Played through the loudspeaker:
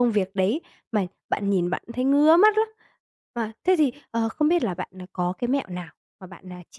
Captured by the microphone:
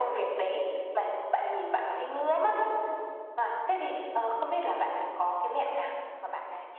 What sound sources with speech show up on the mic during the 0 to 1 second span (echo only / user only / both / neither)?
echo only